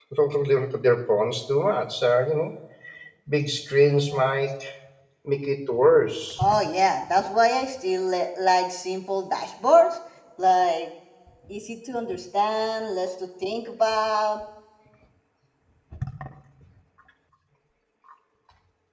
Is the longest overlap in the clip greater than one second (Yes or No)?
No